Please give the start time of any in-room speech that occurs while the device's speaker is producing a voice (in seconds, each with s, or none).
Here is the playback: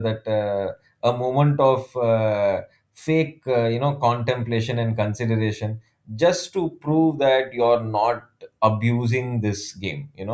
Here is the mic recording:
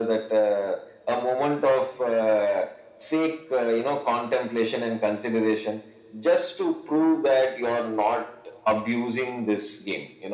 none